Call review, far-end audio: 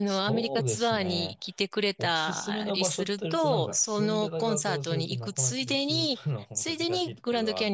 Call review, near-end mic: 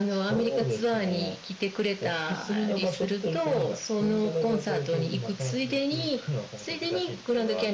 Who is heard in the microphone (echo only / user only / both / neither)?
echo only